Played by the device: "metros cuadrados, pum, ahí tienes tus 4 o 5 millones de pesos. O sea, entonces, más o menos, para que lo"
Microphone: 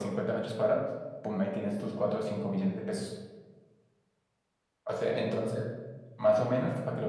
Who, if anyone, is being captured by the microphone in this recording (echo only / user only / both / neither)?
echo only